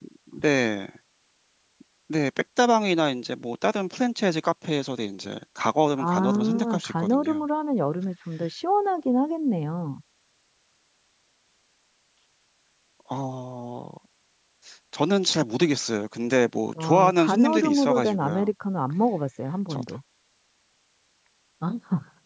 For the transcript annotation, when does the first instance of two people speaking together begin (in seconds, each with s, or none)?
6.0 s